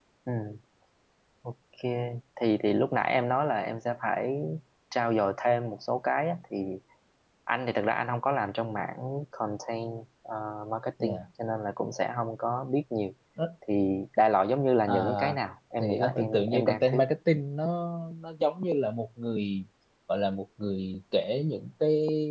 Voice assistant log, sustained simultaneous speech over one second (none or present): present